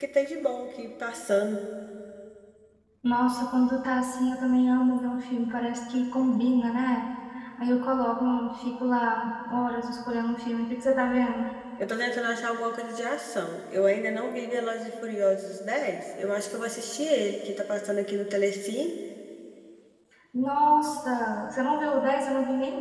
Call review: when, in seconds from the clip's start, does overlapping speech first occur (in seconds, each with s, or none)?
none